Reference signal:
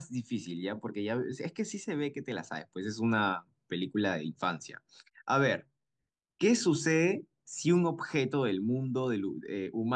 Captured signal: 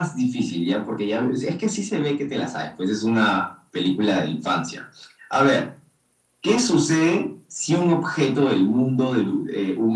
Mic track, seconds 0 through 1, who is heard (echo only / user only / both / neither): echo only